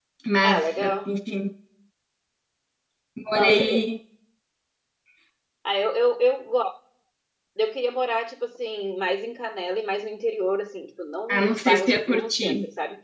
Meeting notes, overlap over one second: present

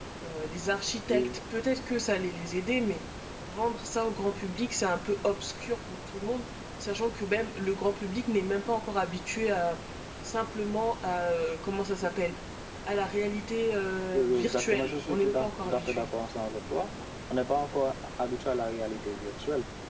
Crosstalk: present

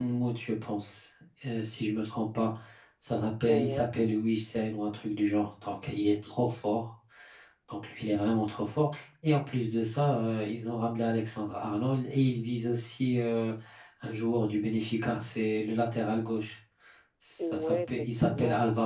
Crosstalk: present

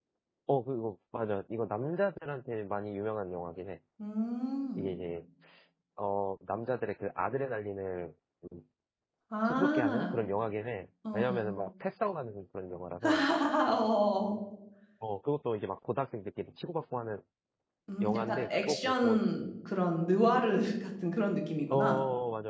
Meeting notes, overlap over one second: present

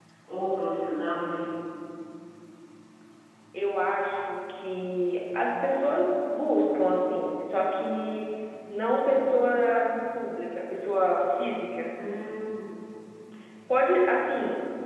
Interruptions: none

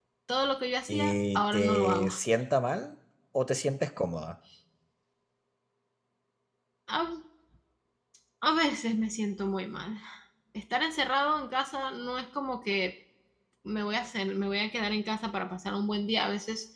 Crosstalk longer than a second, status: present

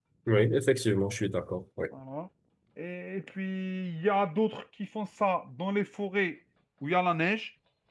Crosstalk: none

